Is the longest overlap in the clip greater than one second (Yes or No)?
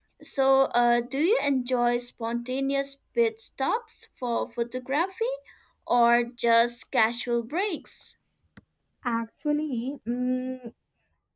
No